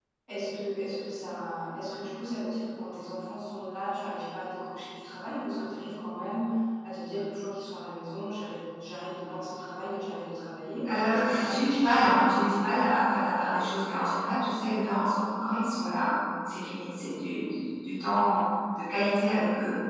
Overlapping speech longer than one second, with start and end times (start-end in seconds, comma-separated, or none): 10.9-12.4